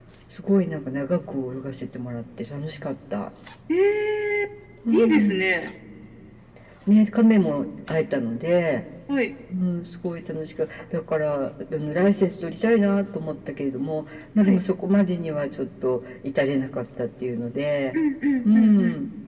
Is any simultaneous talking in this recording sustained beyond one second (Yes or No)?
No